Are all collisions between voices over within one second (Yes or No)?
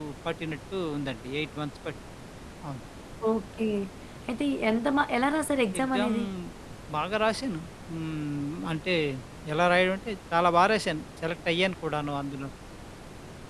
Yes